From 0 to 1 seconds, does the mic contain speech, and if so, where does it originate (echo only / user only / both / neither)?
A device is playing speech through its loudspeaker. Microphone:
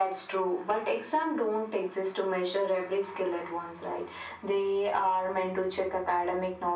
echo only